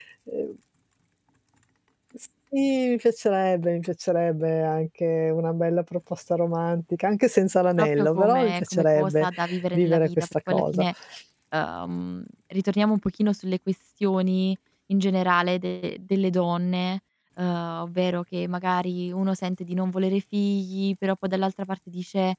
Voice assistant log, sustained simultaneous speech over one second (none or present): present